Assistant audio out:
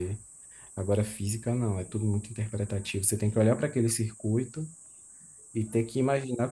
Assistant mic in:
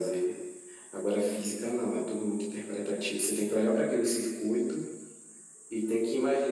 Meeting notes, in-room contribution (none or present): none